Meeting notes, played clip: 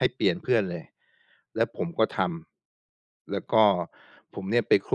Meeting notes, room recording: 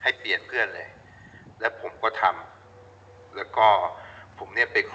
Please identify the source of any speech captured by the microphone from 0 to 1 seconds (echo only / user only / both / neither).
echo only